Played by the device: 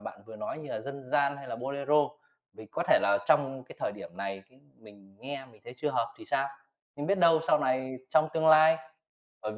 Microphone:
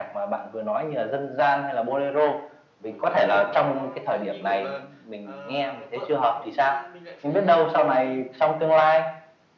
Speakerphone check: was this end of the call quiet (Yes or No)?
No